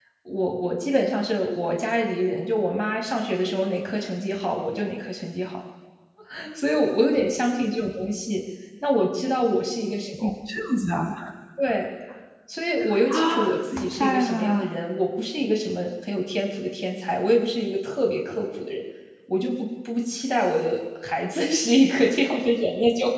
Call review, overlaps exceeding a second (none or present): present